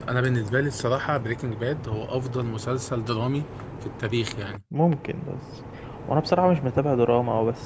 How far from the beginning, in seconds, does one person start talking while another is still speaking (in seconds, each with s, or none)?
none